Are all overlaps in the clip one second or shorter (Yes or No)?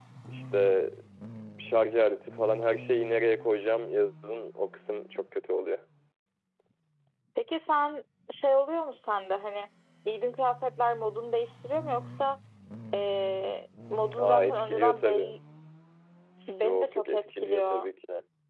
No